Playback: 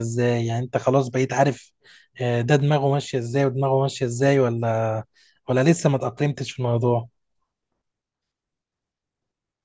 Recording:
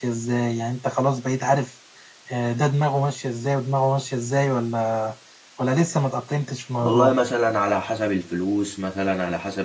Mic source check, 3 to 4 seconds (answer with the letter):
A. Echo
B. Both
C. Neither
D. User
A